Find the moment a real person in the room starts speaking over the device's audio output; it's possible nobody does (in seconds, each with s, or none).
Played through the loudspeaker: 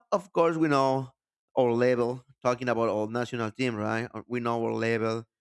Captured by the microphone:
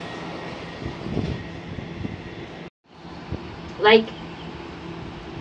3.8 s